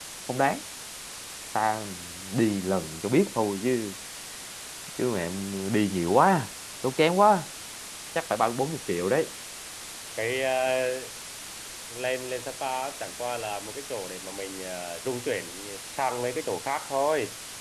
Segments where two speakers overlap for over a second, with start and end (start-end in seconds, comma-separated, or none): none